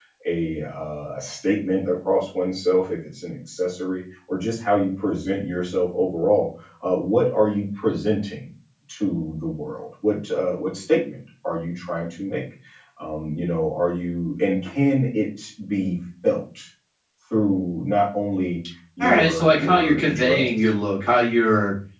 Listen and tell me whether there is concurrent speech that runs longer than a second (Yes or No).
Yes